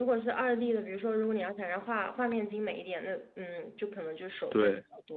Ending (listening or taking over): listening